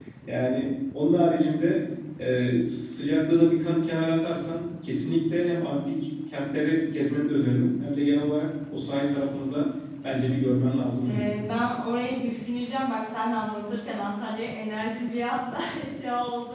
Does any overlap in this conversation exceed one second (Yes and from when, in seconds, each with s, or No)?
No